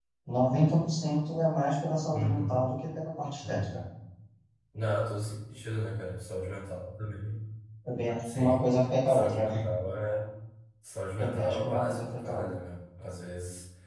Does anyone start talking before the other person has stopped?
Yes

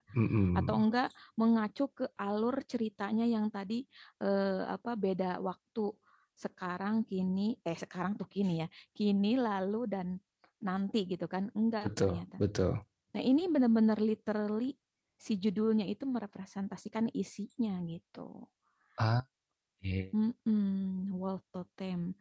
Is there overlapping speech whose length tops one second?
No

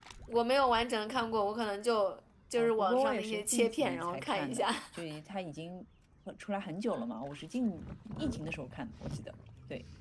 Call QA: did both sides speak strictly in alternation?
No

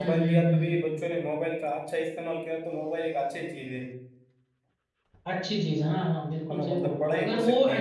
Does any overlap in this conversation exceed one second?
Yes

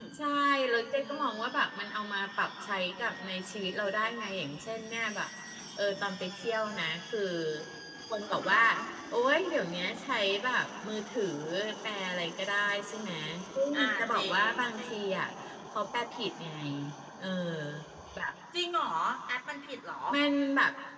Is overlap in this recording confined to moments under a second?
No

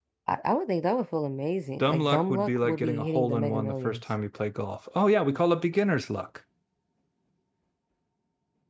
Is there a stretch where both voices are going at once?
Yes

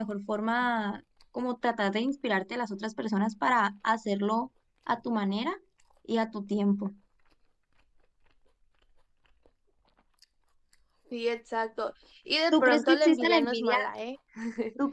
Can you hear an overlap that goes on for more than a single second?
Yes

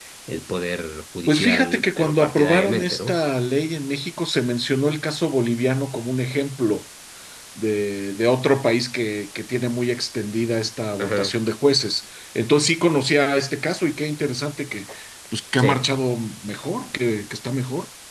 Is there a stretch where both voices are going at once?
Yes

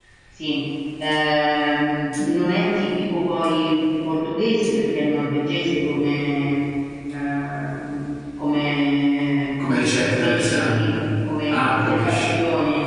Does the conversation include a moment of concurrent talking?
Yes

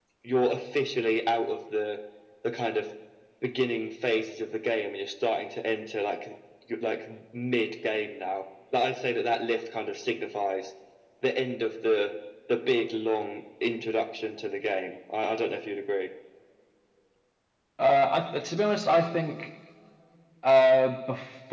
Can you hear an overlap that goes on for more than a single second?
No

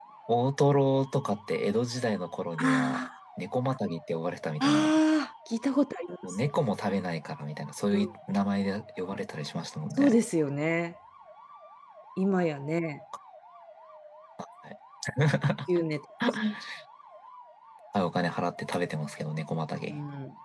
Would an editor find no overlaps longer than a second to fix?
Yes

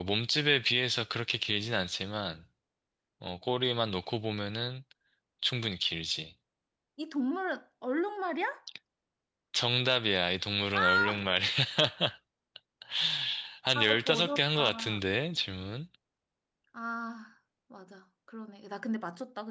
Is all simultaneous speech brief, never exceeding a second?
No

